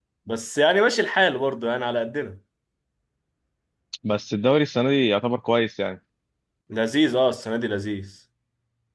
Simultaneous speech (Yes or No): No